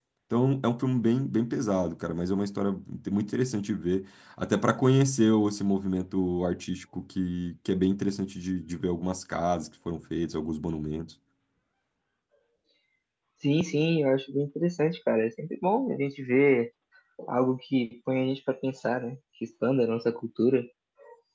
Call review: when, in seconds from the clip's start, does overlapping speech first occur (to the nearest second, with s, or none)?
none